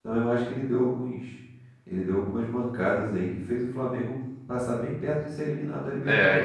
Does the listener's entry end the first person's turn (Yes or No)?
Yes